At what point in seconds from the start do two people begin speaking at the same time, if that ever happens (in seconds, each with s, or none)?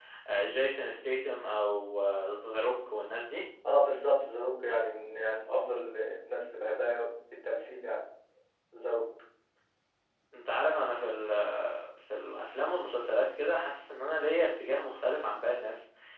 none